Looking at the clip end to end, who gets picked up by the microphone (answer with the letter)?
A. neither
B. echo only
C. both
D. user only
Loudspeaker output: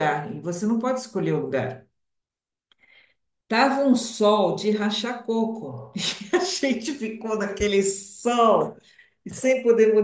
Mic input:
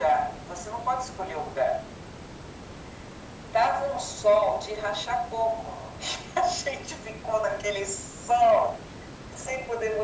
B